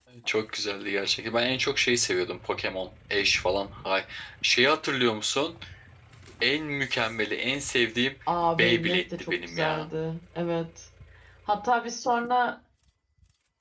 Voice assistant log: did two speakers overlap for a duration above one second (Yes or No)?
Yes